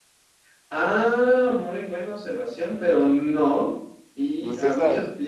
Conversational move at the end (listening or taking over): listening